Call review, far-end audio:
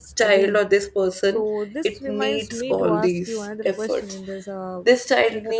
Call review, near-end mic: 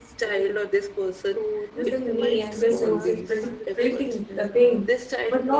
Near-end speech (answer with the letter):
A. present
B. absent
A